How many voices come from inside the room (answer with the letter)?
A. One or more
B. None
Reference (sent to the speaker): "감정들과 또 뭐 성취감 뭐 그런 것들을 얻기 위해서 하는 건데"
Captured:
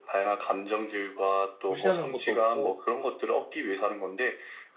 A